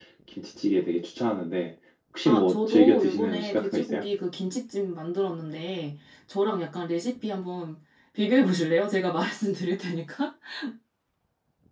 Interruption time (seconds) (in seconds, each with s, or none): 2.2 s